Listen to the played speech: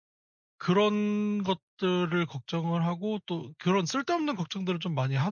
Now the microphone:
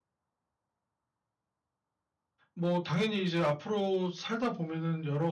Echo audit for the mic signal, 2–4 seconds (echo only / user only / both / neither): user only